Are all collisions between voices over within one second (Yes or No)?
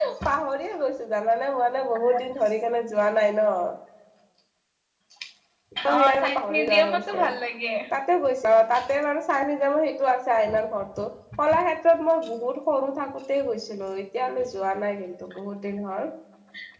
No